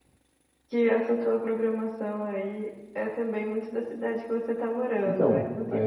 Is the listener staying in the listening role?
No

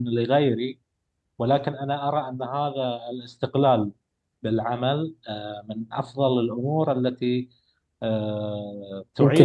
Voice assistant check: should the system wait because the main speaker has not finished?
Yes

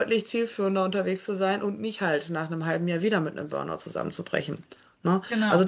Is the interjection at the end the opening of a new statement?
No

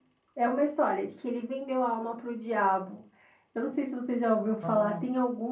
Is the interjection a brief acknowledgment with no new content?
Yes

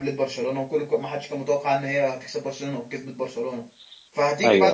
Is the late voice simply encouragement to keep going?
Yes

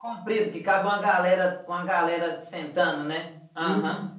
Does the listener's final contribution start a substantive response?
Yes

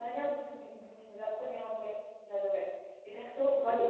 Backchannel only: Yes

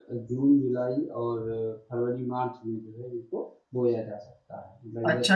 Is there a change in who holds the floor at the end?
Yes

